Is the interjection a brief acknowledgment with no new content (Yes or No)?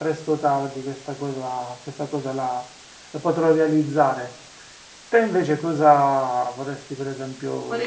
No